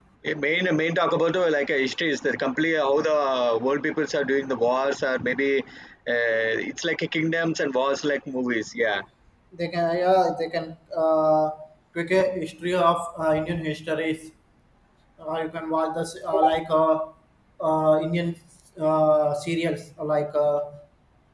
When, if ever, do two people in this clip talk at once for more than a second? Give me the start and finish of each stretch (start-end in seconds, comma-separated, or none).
none